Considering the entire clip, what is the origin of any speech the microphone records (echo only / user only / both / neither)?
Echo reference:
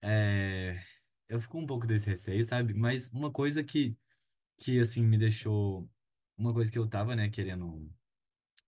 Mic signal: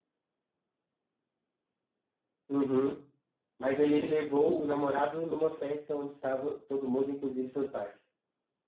user only